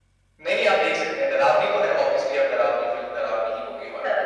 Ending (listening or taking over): listening